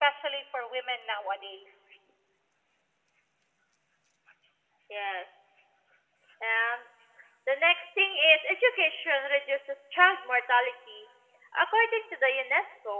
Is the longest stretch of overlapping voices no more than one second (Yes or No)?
Yes